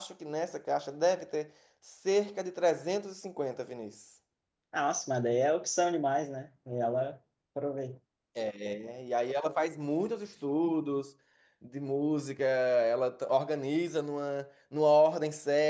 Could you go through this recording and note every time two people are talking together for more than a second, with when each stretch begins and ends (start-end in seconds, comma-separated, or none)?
none